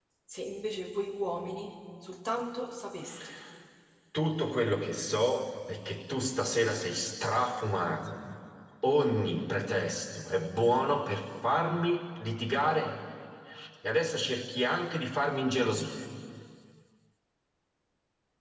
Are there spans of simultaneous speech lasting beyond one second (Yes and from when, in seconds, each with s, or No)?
No